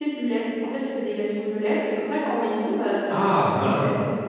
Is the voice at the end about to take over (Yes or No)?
Yes